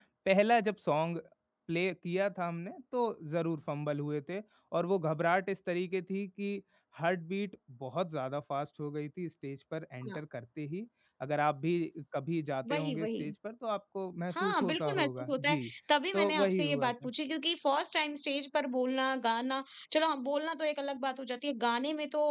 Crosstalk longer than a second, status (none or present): present